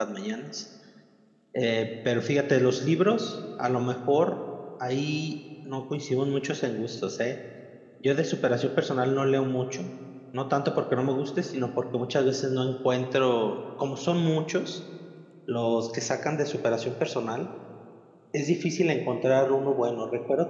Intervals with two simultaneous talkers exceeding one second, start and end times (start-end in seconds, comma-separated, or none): none